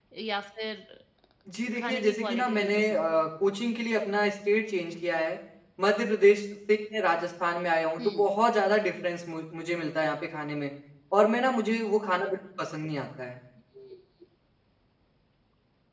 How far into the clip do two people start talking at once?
1.8 s

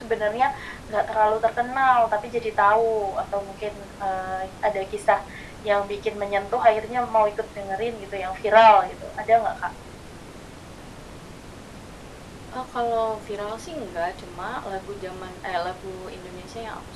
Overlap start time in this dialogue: none

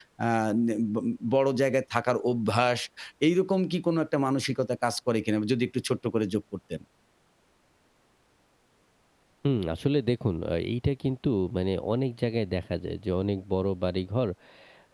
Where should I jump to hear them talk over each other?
none

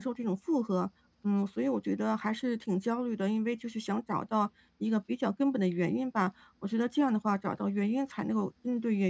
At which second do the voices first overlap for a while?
none

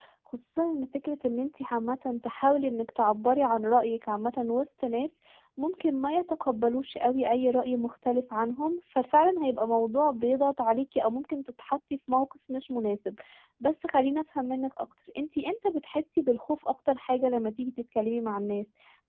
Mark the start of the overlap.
none

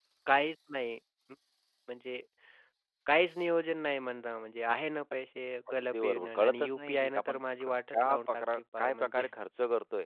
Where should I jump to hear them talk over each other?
5.7 s

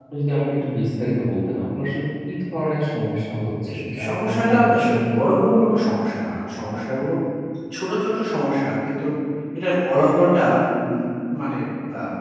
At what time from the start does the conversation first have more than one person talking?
3.6 s

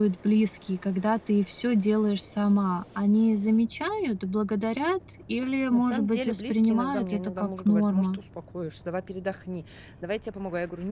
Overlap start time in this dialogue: 5.7 s

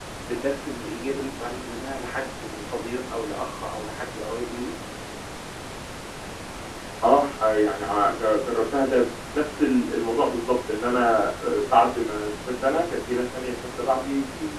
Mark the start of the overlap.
none

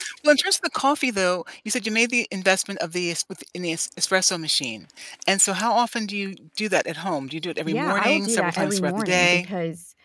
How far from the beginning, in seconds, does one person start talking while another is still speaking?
7.7 s

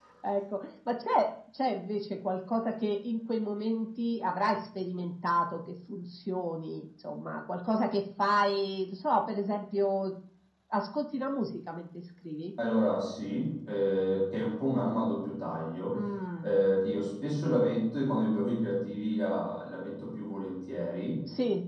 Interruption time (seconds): none

